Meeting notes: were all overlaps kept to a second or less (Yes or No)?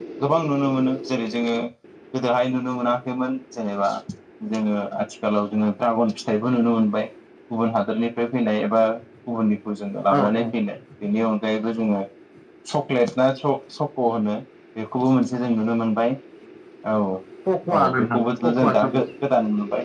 No